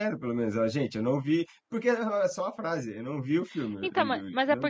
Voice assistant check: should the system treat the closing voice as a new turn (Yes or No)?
Yes